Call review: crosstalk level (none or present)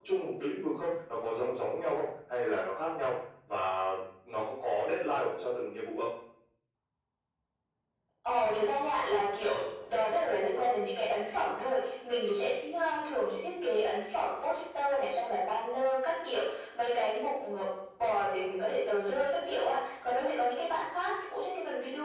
none